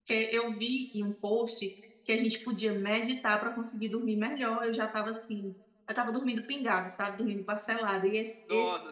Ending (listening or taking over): taking over